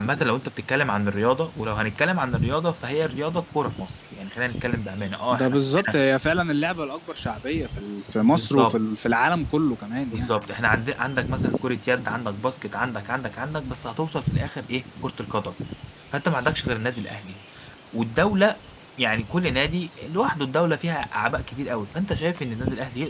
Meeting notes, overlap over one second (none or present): none